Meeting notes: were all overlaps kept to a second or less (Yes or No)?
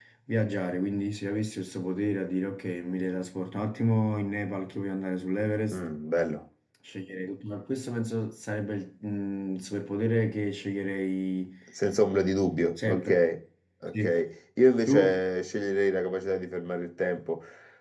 Yes